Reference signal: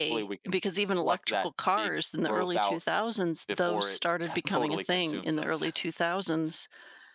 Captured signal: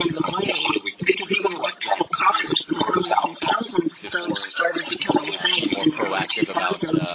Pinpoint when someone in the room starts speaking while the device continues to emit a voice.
5.3 s

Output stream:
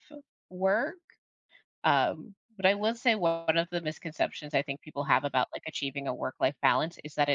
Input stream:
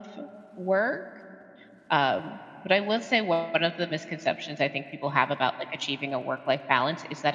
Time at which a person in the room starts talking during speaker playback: none

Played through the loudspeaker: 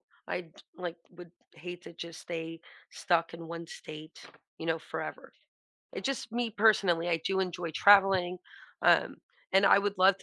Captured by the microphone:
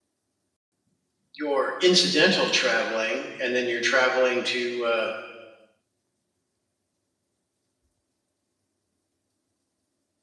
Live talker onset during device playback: 1.3 s

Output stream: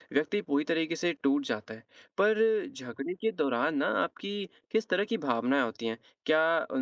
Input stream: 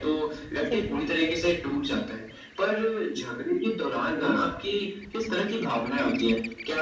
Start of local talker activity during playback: 0.7 s

